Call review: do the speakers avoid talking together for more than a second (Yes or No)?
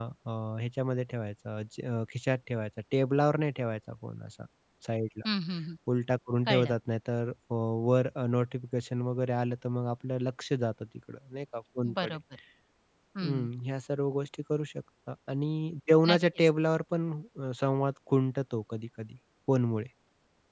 Yes